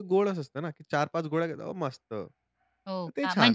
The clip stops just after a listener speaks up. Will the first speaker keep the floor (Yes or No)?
No